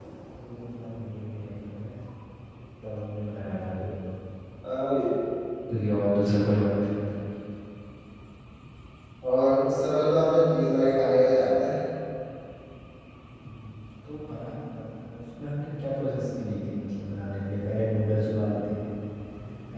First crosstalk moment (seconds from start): none

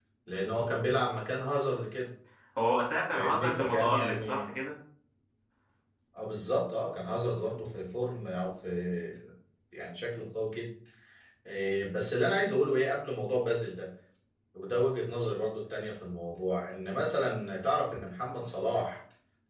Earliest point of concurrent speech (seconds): 3 s

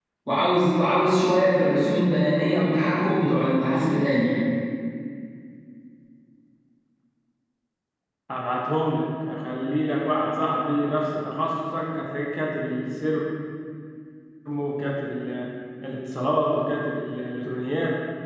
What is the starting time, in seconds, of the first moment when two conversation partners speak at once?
none

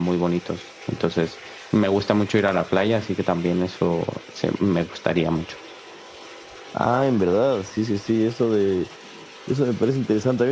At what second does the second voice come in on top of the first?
none

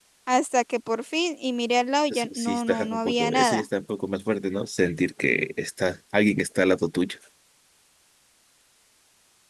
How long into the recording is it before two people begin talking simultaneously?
2 s

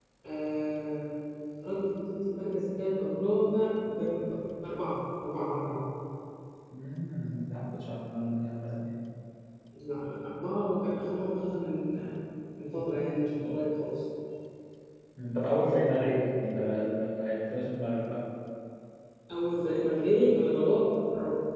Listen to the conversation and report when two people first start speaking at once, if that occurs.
none

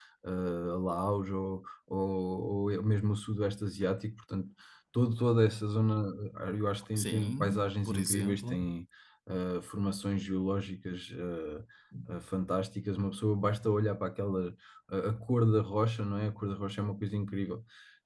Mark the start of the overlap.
7 s

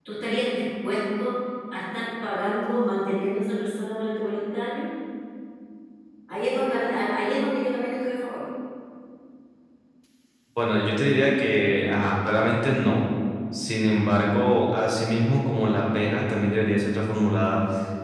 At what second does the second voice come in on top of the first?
none

